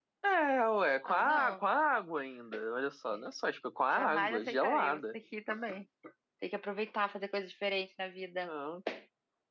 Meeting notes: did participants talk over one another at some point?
Yes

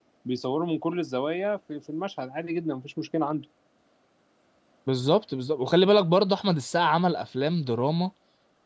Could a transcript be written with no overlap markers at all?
Yes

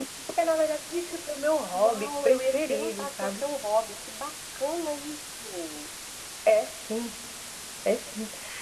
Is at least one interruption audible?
Yes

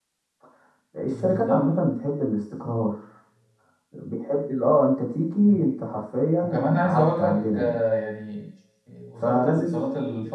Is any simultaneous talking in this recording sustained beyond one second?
Yes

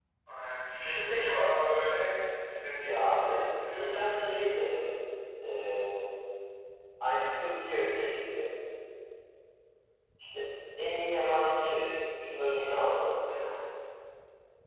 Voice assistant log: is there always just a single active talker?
No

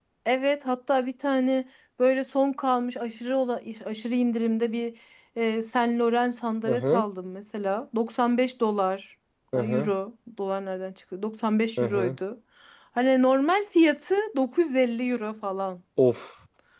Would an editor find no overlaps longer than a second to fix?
Yes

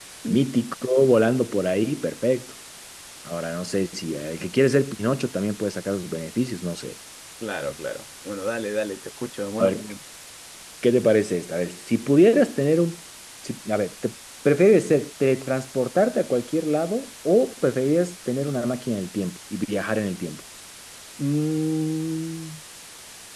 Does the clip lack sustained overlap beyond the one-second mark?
Yes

